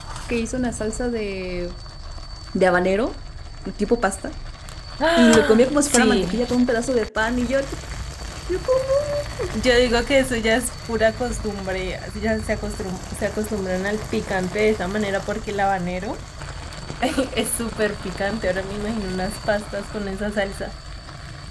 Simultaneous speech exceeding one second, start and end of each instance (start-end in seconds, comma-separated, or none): 5.2-6.5